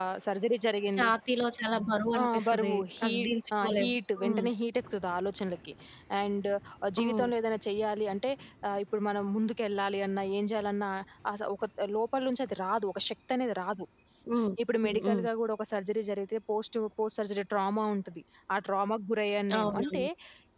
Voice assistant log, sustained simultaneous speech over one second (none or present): present